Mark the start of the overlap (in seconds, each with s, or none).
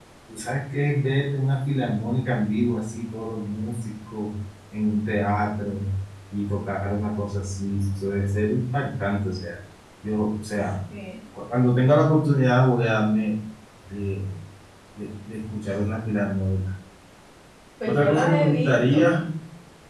17.9 s